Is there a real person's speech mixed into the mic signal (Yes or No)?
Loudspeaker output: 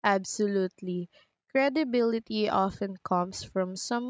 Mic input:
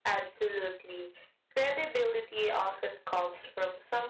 No